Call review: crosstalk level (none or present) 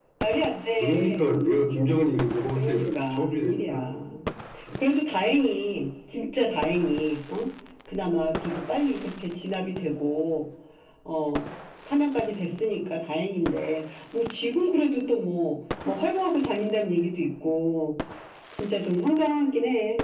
present